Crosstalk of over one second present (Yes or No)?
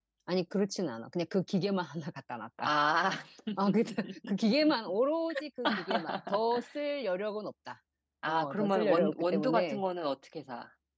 Yes